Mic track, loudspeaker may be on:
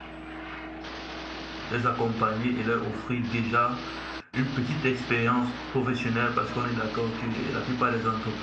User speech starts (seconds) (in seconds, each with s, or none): 1.7 s